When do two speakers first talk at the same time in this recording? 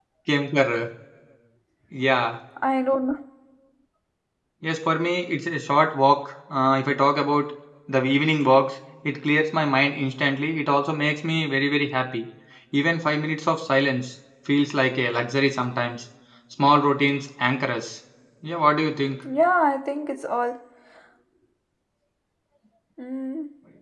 none

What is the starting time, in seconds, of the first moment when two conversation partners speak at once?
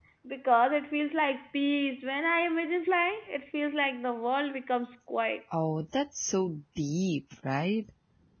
none

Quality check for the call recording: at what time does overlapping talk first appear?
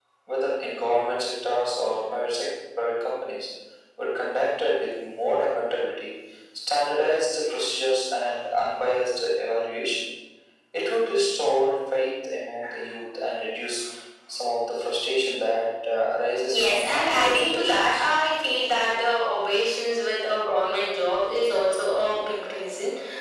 16.5 s

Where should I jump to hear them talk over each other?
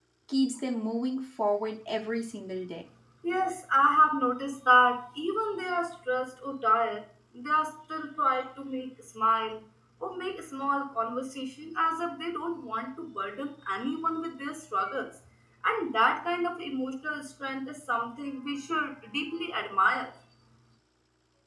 none

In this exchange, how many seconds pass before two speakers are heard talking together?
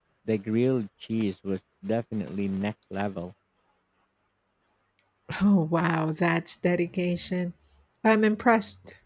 none

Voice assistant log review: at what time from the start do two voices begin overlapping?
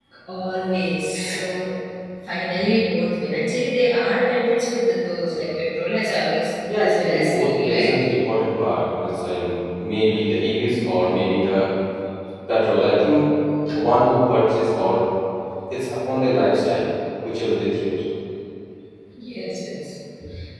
6.7 s

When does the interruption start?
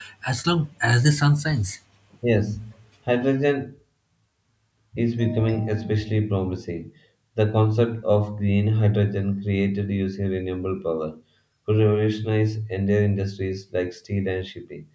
none

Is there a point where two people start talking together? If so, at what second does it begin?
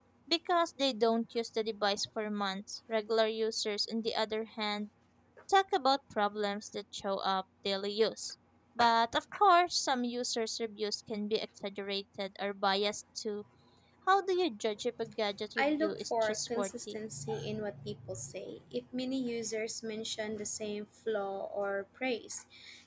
15.6 s

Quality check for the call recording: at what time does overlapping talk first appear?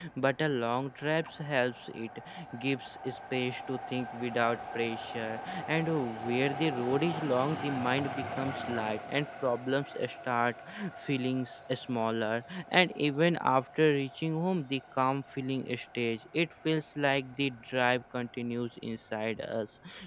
none

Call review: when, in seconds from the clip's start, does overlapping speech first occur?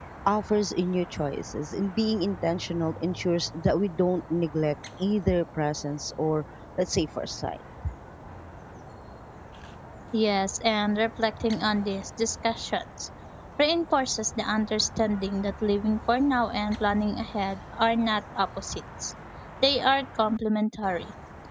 none

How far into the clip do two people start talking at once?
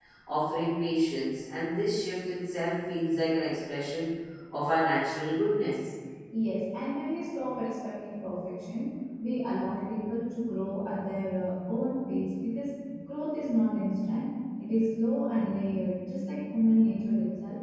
none

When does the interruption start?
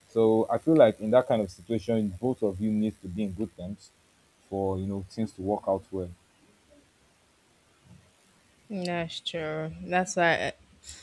none

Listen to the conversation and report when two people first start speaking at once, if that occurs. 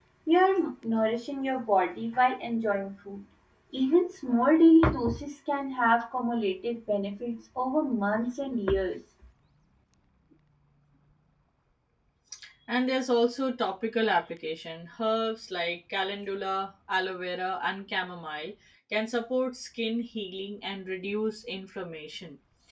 none

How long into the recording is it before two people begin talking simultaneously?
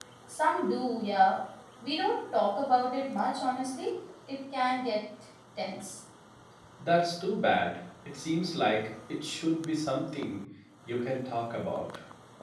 none

